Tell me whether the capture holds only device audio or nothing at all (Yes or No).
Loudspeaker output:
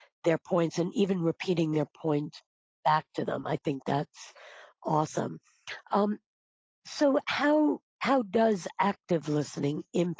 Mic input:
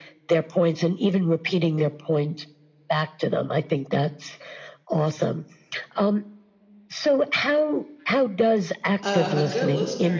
No